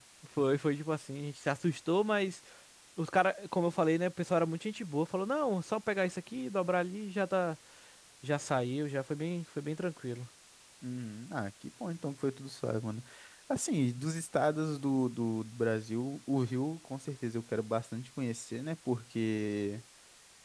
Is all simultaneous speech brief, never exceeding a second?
Yes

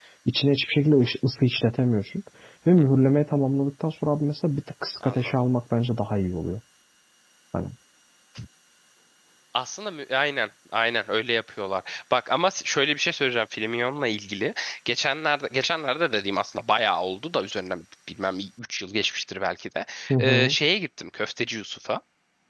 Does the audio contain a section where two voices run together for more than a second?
No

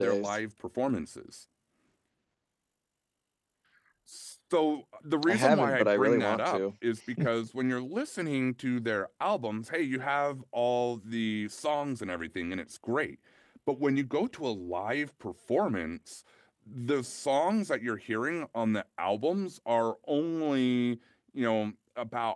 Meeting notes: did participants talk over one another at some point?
Yes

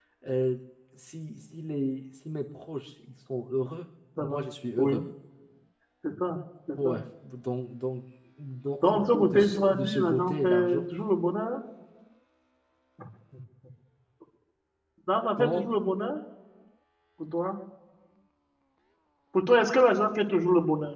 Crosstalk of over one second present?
Yes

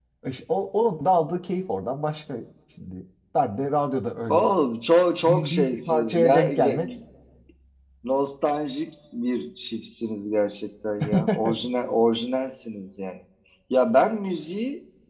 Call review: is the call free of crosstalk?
No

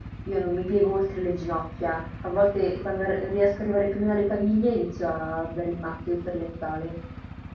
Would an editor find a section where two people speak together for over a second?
No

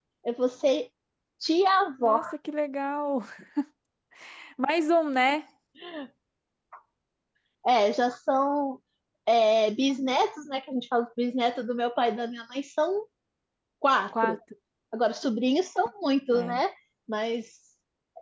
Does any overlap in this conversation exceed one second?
No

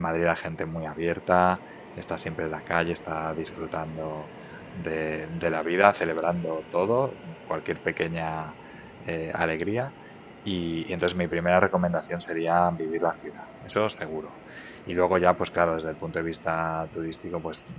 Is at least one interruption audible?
No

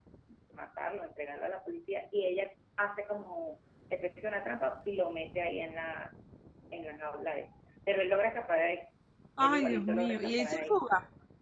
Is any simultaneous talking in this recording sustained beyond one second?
Yes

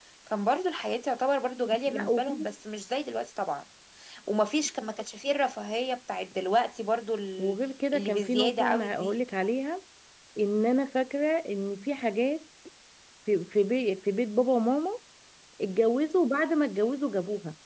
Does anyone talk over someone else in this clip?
Yes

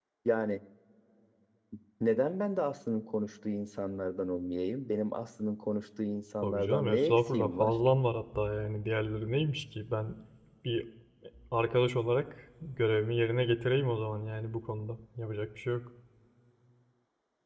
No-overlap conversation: No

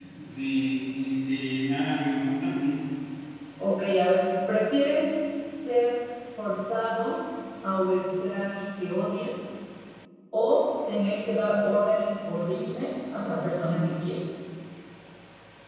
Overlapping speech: No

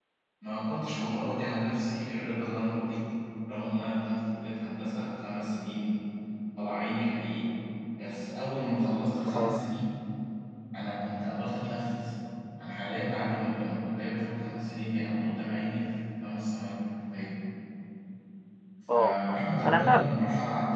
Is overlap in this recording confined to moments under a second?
No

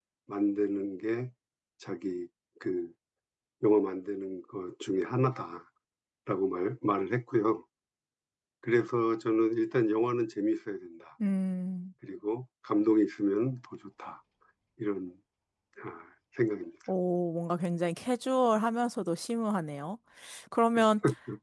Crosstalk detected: No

